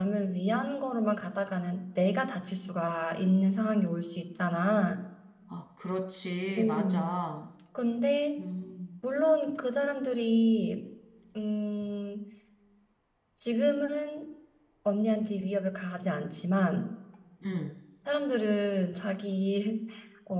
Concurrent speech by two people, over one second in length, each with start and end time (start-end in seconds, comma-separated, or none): none